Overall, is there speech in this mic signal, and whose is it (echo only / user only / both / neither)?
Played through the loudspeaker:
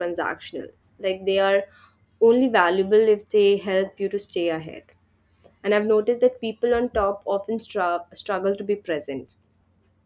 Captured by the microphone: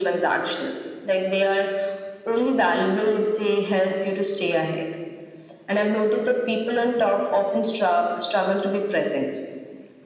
echo only